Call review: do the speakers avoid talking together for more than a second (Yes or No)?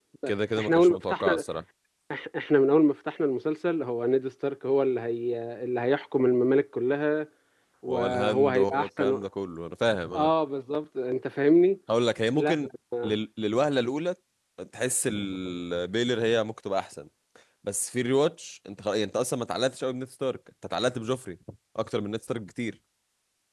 No